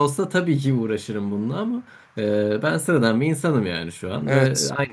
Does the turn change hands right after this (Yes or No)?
No